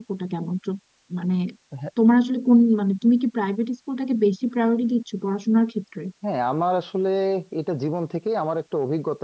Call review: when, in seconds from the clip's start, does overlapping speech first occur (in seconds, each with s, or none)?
none